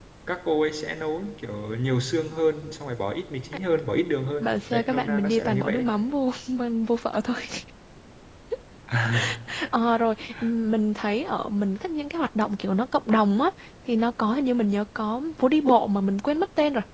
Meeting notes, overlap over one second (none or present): present